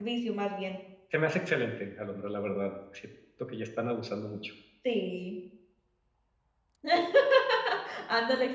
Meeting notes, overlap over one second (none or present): none